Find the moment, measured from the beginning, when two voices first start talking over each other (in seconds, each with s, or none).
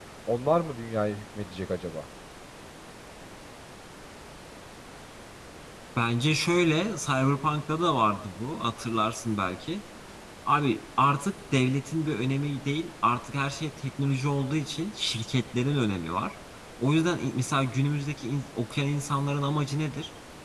none